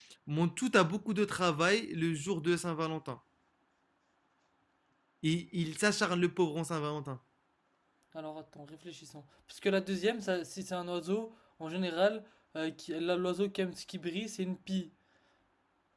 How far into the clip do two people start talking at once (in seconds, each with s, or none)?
none